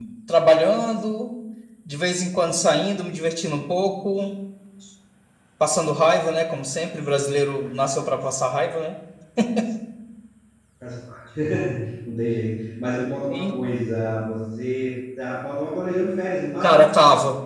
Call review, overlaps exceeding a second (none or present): none